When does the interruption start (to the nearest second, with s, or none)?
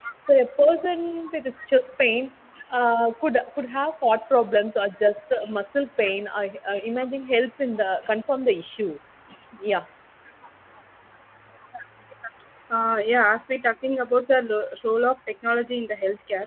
none